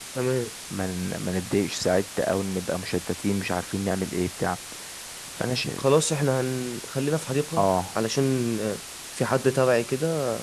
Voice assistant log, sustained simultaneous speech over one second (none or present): none